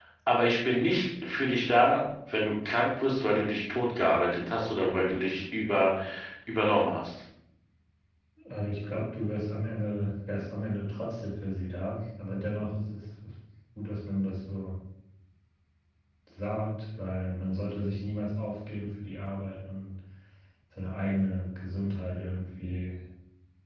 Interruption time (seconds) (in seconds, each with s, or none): none